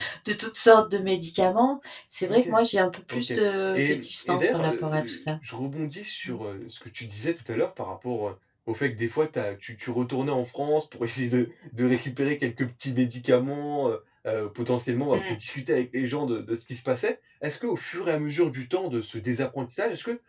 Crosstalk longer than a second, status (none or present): present